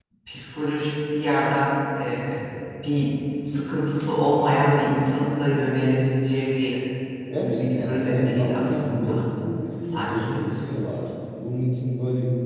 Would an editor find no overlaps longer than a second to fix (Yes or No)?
No